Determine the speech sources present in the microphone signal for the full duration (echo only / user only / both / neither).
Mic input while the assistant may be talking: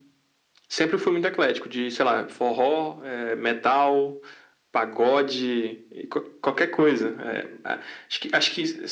echo only